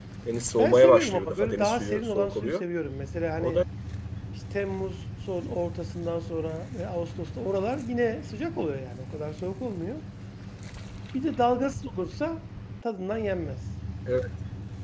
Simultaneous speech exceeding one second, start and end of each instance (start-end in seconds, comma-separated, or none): 0.6-2.6